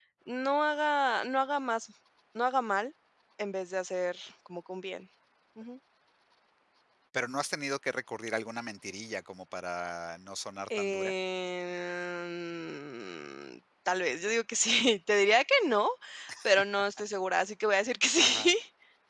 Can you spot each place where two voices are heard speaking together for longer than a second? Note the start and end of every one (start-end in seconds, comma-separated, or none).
none